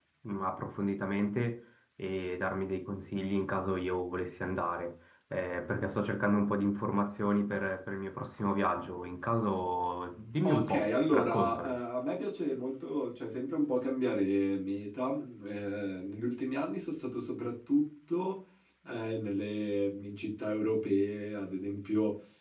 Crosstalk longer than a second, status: present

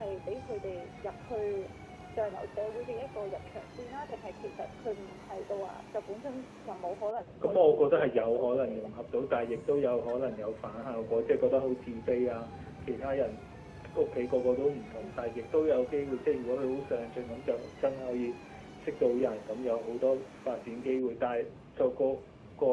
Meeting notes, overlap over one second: present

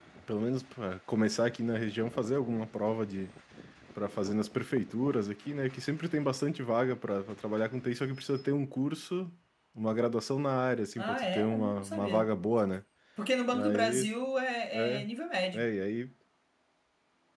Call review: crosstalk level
present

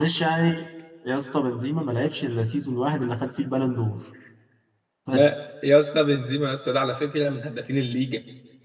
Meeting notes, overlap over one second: none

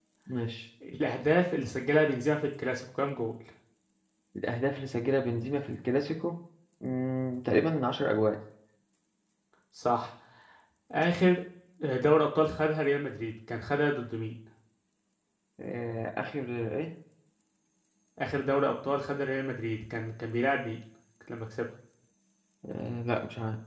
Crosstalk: none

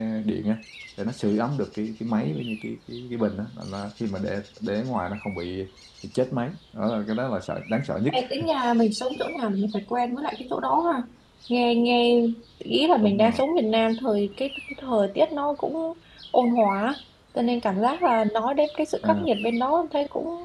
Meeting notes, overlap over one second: none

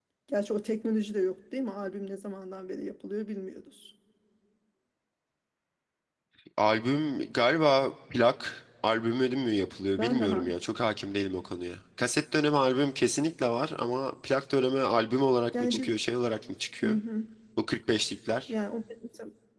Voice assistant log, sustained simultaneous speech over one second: none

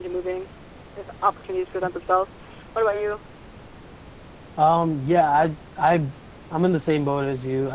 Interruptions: none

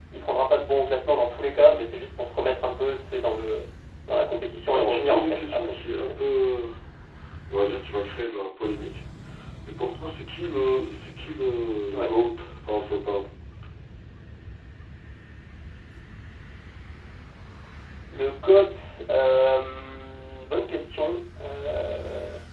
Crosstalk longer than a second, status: present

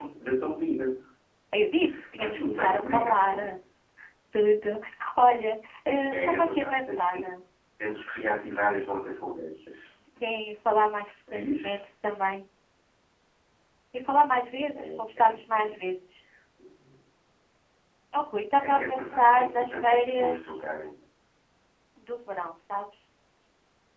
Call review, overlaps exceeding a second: present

